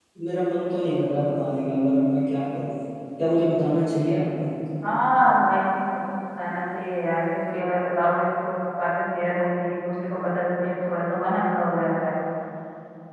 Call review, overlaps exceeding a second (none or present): none